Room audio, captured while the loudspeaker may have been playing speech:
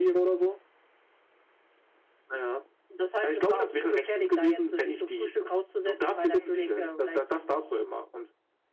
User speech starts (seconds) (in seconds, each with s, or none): none